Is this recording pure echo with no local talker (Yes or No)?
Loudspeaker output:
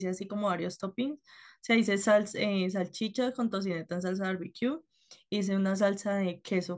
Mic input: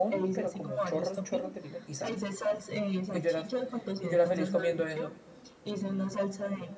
No